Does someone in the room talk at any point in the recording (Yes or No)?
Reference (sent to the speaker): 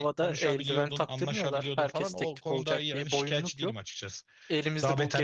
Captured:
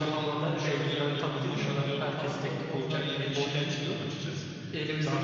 No